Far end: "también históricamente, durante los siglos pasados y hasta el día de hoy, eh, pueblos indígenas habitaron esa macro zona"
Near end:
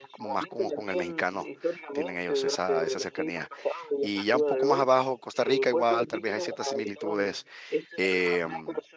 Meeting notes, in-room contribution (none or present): present